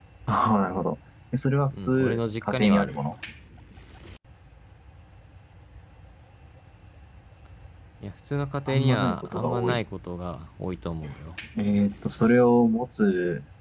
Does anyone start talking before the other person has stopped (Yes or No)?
Yes